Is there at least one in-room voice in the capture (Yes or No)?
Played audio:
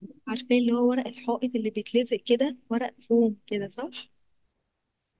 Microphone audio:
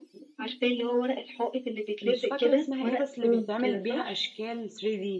Yes